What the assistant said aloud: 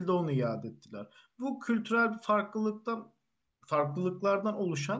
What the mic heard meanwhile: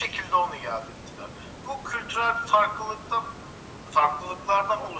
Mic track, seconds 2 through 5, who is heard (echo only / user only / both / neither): echo only